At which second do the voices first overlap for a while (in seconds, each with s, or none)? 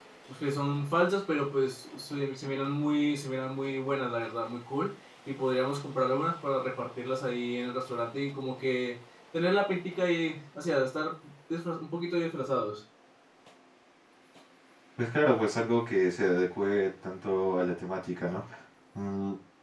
none